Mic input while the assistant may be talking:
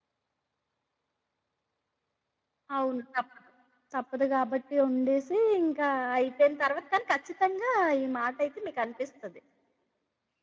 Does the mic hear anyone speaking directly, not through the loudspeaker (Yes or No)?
No